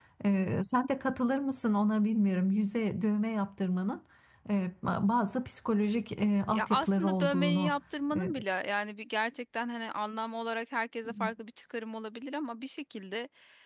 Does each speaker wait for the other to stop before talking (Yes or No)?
No